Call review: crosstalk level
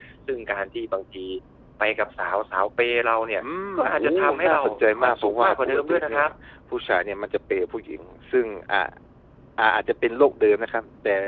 present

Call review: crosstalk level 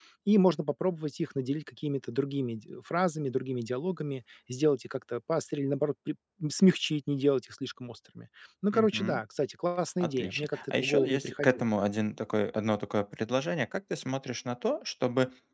present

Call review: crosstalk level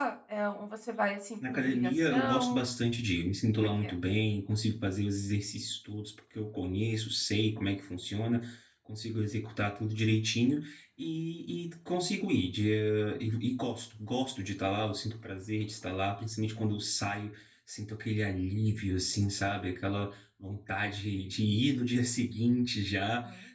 present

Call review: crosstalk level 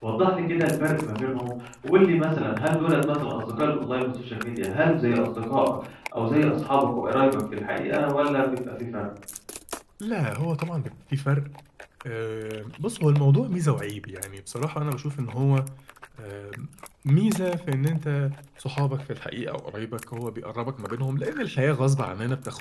none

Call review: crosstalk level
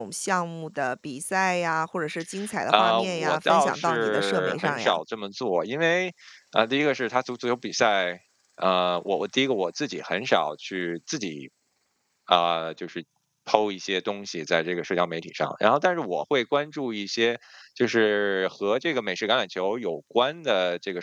present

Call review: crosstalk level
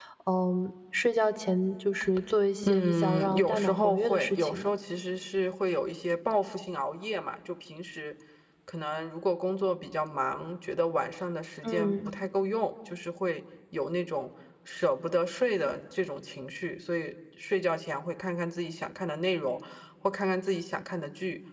present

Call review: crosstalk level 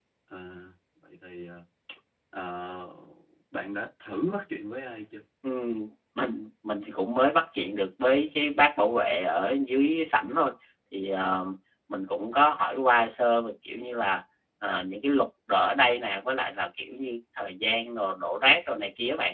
none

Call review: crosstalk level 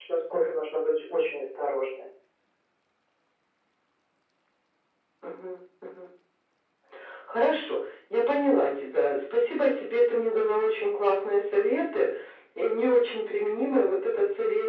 none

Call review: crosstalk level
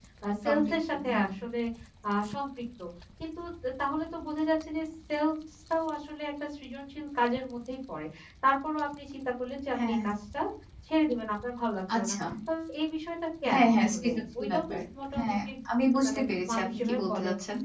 present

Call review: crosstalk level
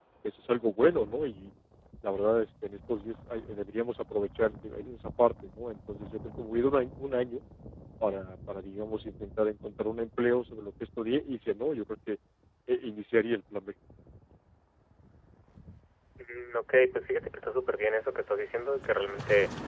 none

